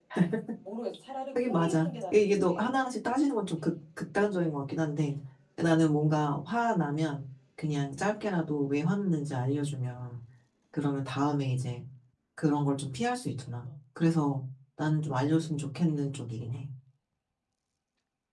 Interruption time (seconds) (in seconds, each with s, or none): 1.3 s